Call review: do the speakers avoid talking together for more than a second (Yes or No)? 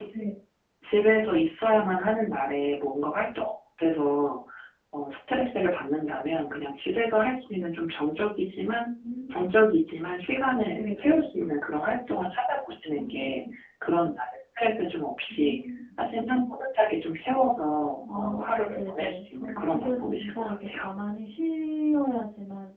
No